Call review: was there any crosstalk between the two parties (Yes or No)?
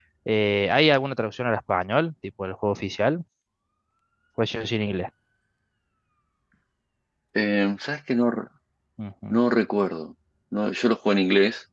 No